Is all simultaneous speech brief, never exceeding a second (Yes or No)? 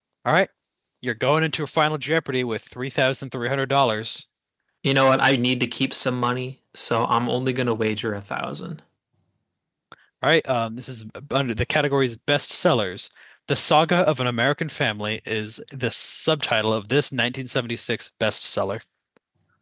Yes